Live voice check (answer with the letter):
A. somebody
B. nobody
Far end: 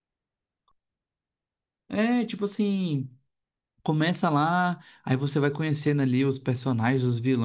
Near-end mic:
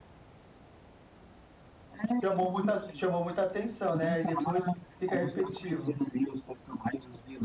A